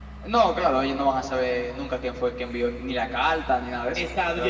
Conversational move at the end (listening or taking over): taking over